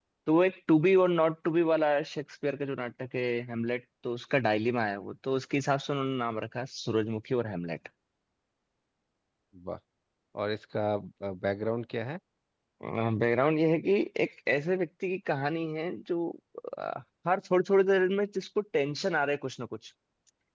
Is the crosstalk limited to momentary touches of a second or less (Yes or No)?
Yes